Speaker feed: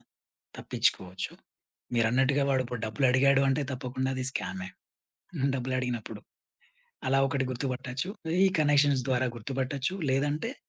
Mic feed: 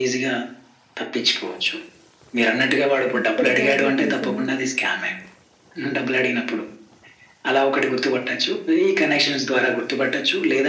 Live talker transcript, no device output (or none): ఇక్కడ జాబ్ లొకేషన్